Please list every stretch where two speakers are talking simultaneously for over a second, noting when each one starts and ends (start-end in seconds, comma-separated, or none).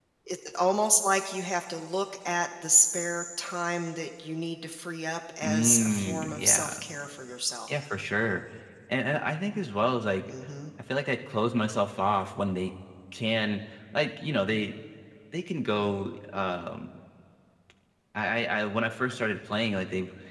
5.4-6.7